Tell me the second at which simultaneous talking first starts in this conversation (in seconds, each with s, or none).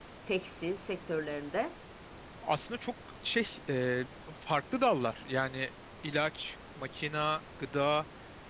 none